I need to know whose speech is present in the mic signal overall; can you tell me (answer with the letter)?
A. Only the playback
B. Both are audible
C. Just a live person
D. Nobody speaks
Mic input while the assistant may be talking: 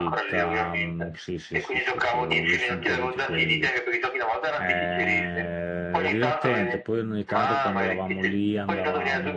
B